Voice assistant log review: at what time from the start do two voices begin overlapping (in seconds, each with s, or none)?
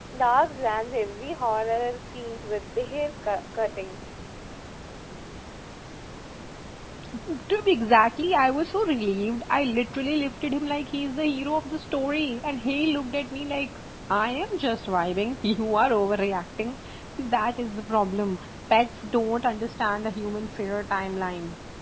none